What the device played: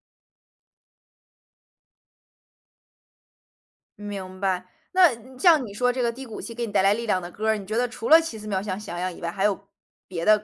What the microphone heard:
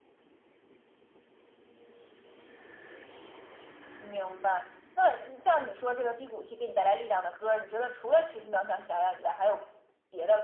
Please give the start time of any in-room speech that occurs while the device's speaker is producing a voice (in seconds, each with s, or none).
none